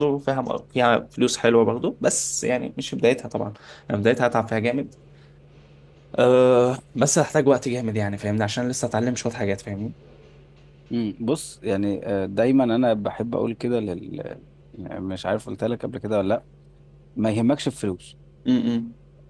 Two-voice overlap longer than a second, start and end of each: none

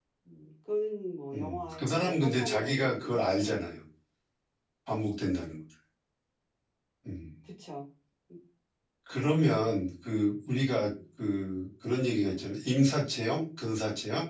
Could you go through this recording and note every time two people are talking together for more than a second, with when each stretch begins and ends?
1.3-3.6

